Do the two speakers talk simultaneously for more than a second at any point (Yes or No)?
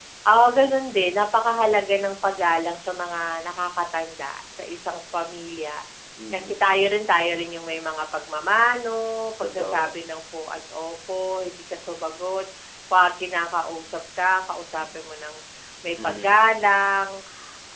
No